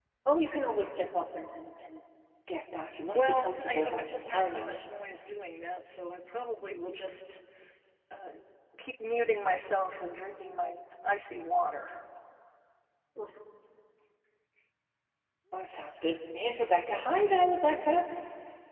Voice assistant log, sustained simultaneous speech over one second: present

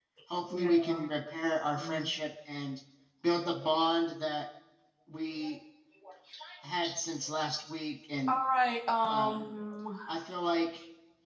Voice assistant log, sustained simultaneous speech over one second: none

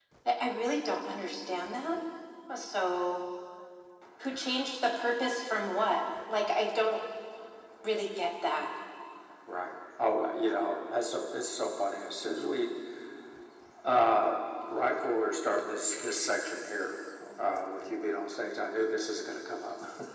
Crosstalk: none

